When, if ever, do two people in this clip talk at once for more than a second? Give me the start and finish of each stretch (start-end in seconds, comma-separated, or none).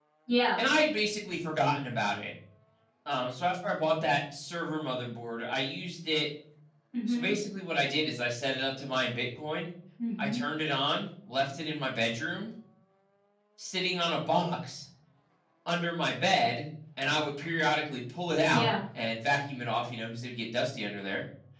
none